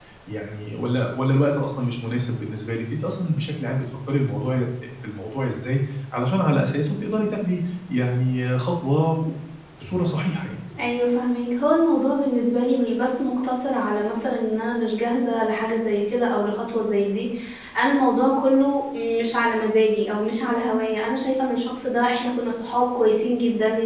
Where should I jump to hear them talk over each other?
none

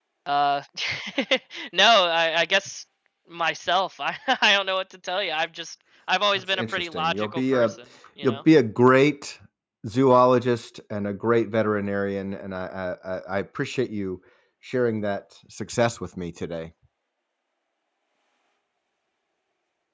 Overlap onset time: 6.5 s

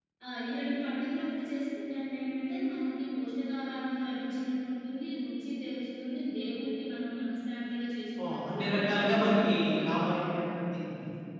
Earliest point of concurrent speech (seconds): 8.2 s

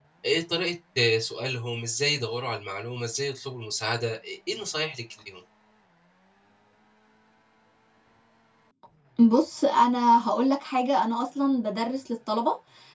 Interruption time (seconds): none

